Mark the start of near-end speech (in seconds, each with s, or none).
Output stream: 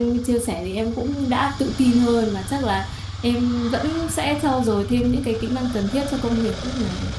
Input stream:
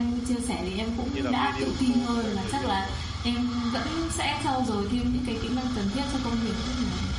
1.1 s